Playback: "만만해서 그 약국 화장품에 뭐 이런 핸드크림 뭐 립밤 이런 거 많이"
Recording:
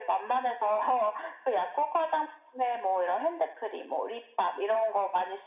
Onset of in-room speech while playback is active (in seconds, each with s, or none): none